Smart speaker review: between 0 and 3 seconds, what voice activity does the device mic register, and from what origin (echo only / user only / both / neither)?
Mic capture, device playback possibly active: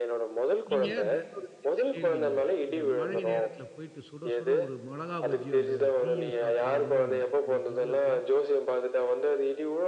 both